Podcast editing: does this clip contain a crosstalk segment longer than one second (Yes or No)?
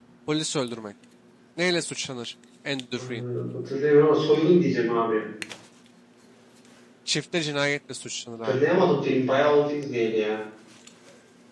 No